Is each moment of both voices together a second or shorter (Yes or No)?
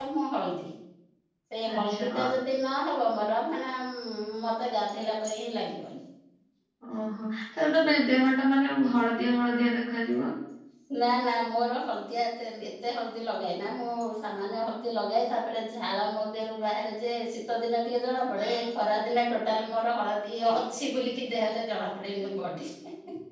Yes